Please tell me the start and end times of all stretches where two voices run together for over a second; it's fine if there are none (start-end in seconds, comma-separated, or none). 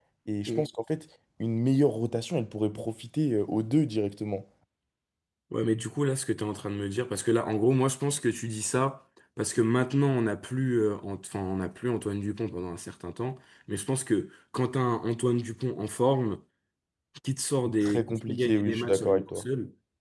17.8-19.4